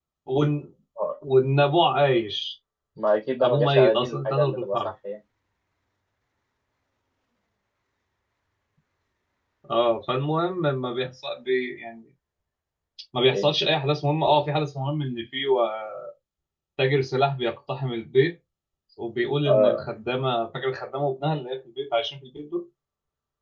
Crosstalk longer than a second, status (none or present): present